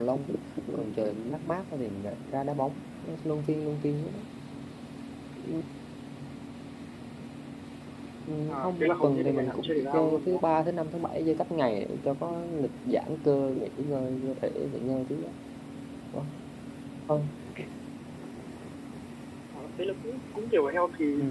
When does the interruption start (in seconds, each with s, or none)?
8.5 s